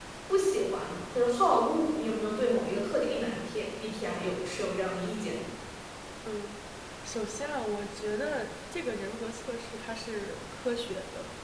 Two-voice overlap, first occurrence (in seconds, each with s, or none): none